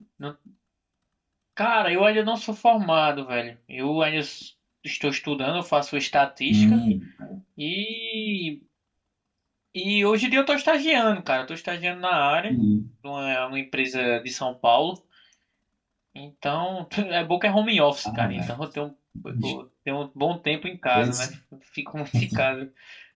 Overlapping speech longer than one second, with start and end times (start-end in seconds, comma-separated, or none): none